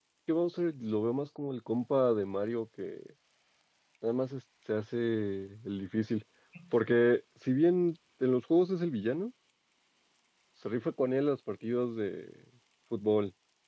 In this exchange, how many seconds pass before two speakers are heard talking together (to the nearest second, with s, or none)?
none